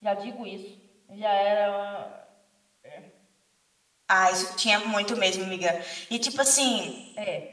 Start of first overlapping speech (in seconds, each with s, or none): none